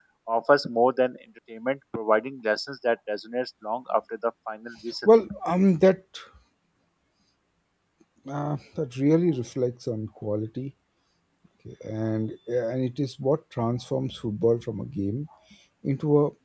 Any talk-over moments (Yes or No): No